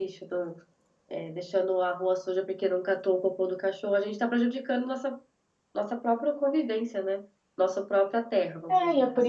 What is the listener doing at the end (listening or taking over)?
taking over